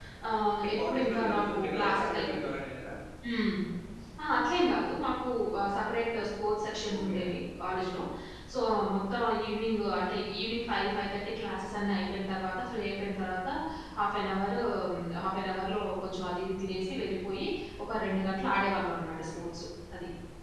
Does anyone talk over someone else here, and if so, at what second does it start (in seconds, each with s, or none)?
0.6 s